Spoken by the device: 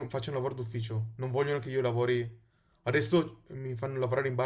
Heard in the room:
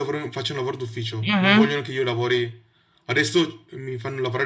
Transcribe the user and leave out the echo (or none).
Mhm.